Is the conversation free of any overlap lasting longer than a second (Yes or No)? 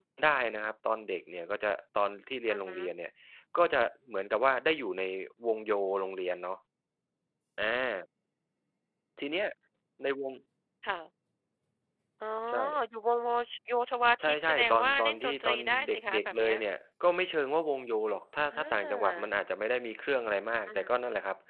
No